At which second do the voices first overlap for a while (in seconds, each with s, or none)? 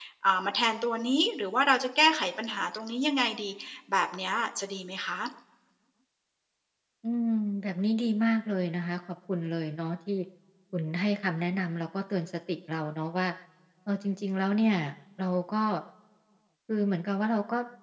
none